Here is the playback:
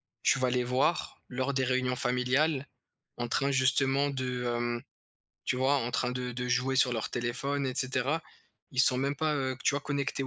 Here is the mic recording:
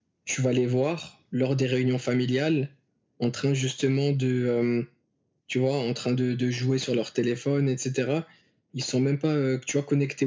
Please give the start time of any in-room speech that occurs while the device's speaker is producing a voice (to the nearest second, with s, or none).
none